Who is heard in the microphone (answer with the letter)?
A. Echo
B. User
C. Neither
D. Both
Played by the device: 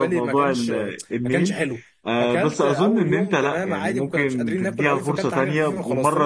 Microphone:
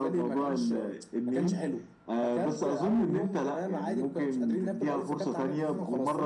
A